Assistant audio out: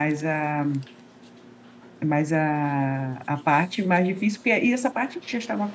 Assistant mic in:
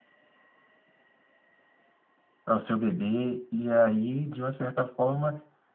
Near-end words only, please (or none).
pra o seu bebê e aí de uma certa forma